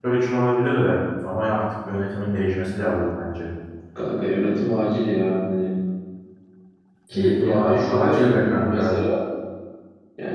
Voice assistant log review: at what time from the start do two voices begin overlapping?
7.1 s

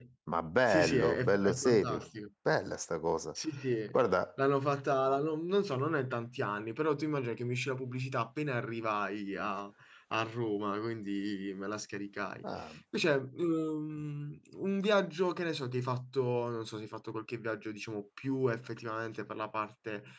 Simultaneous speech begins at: 0.7 s

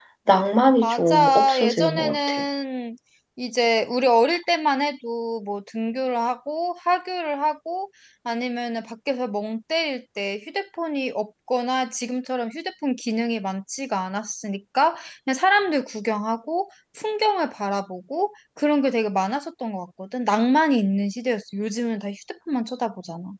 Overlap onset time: 0.8 s

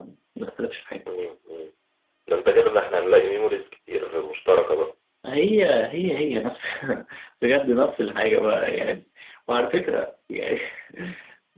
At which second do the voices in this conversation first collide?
none

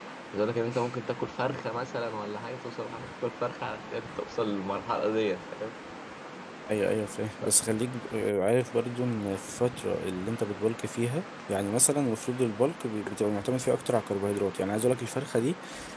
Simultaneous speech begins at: none

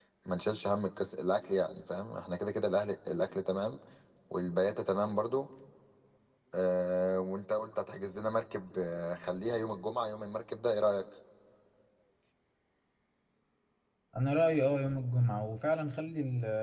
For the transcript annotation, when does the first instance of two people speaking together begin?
none

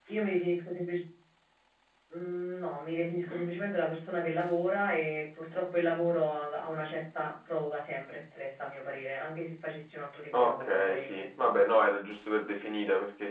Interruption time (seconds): 10.3 s

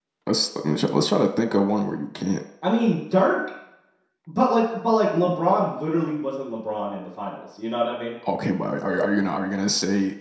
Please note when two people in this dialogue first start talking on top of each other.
none

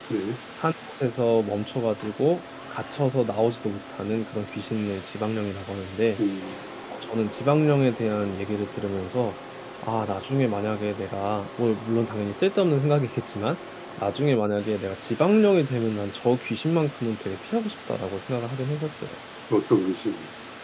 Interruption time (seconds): none

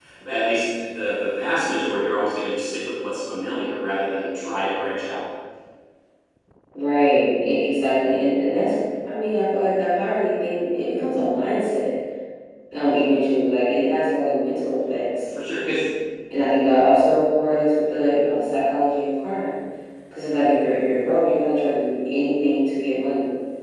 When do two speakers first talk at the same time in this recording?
none

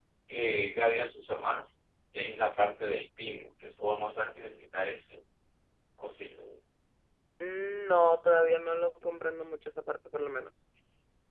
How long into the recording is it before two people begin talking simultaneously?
none

